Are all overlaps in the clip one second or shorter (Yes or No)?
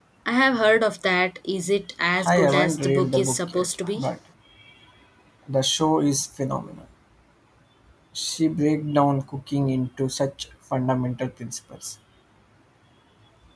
No